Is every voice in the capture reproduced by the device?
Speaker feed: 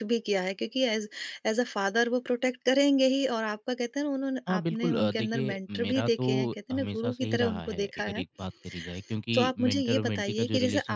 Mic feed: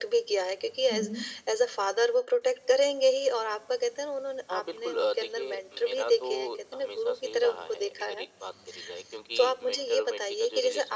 No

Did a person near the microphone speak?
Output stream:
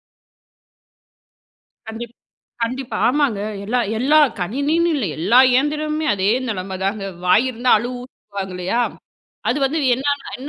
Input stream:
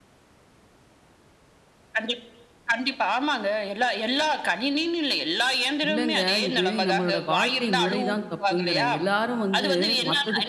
Yes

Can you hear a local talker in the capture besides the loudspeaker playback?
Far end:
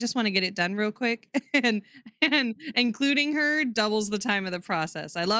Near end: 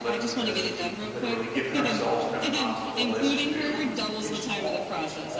Yes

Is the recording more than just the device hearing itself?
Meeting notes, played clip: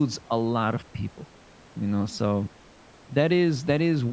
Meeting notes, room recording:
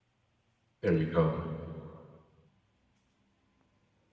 Yes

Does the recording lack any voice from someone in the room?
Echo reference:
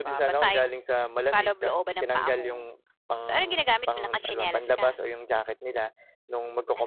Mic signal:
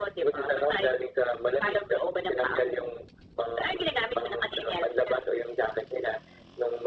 Yes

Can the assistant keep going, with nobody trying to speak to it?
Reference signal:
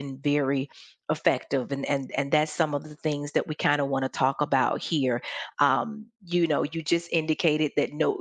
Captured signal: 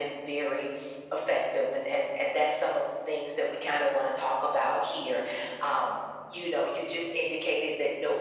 Yes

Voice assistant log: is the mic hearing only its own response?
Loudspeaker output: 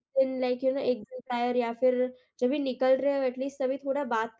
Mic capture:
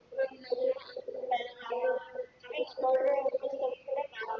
Yes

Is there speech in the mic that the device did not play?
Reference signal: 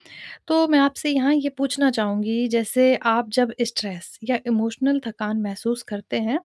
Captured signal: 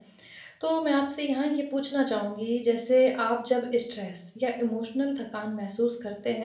No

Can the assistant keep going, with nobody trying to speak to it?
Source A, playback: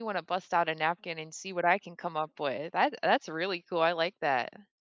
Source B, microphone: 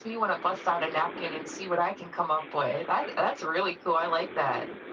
Yes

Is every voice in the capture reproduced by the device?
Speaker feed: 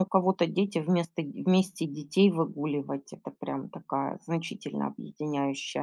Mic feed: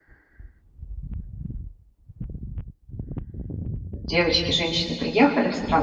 No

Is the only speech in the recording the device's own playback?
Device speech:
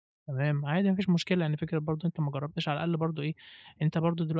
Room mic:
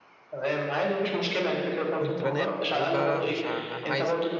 No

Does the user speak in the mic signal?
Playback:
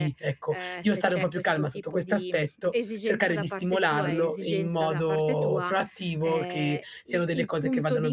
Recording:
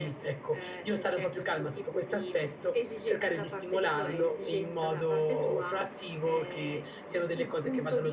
No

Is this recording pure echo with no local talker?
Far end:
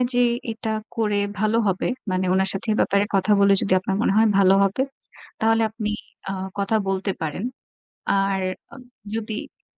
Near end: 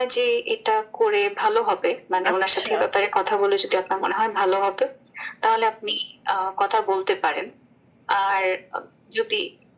No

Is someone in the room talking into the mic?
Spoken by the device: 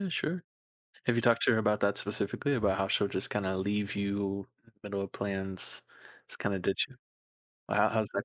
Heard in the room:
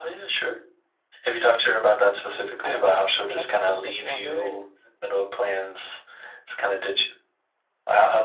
Yes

